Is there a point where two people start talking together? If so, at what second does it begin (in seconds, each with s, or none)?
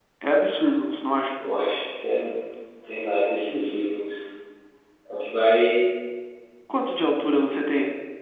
none